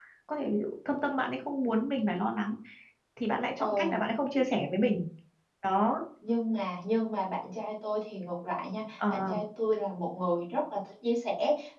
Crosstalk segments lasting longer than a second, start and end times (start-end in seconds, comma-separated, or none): none